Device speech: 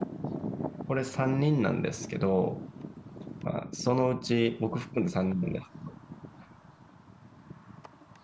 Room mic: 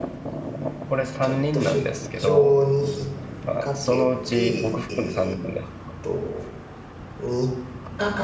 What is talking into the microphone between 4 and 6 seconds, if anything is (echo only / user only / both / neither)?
both